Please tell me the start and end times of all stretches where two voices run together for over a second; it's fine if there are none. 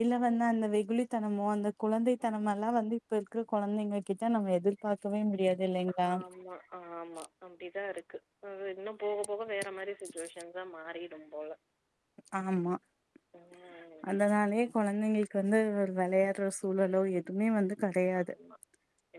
none

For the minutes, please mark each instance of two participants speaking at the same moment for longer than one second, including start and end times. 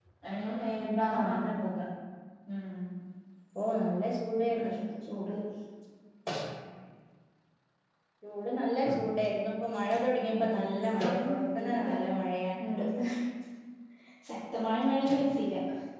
10.2-11.9

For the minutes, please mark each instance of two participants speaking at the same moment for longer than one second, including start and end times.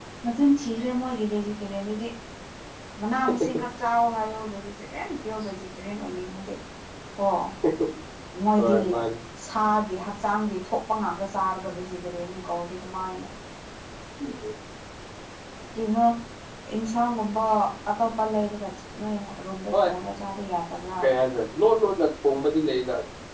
none

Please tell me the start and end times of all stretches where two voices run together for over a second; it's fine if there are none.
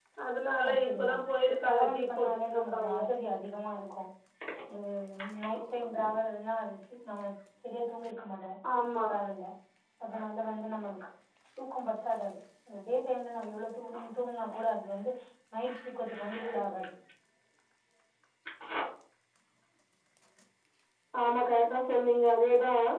1.7-3.0

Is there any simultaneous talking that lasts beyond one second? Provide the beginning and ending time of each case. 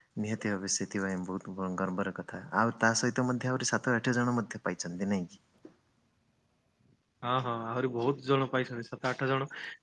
none

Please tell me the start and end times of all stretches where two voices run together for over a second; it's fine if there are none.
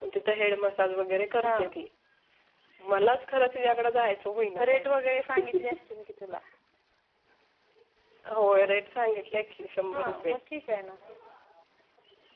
none

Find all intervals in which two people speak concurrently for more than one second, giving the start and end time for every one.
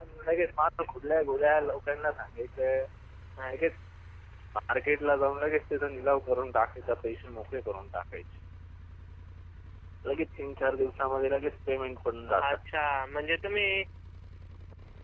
none

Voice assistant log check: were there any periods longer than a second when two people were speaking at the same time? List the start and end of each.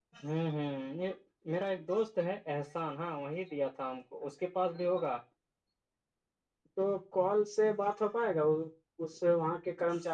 none

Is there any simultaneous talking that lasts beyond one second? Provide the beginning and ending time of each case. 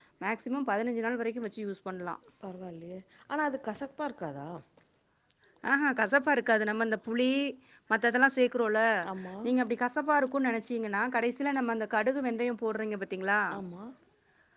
none

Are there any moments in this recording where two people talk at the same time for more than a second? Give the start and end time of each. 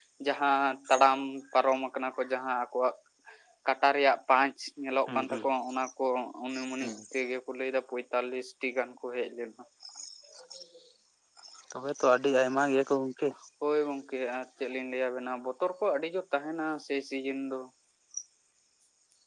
none

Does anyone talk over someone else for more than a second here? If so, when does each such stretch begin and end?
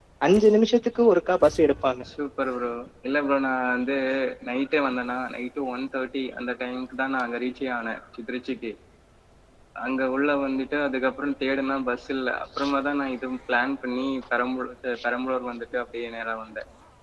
none

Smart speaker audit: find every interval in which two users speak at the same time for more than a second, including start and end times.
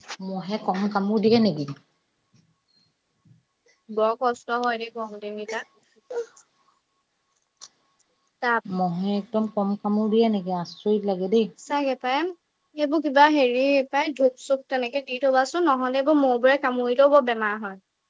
none

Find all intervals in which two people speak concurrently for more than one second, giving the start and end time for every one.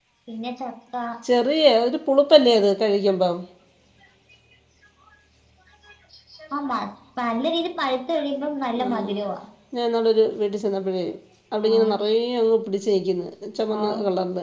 none

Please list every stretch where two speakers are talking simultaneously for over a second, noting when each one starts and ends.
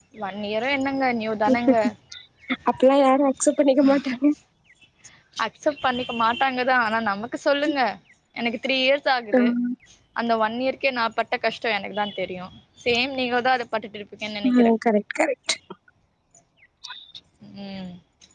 none

